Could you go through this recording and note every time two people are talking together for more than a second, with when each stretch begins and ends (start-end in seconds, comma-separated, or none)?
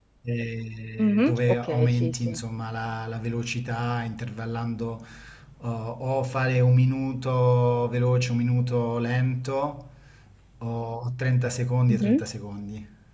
1.0-2.3